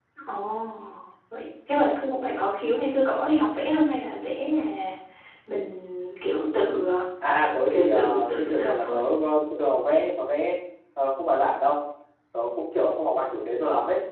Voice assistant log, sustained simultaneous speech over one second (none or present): present